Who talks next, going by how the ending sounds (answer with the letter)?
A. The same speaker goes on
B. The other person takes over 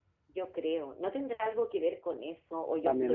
B